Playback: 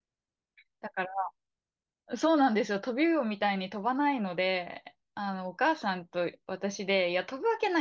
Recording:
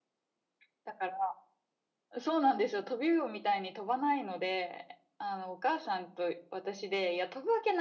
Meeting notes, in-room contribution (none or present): none